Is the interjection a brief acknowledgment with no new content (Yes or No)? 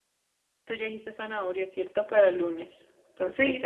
No